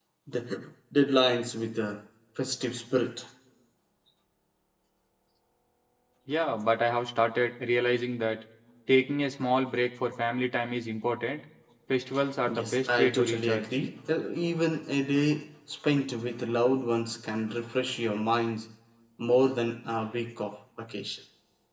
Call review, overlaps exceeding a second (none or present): present